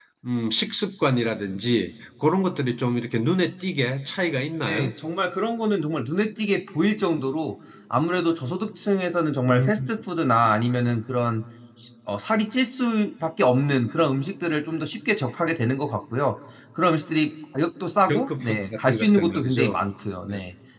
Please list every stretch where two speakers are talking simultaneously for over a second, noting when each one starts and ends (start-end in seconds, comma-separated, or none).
18.1-19.7